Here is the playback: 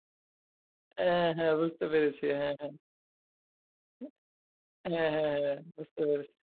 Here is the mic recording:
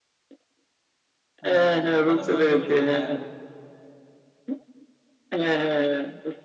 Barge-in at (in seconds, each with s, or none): 1.4 s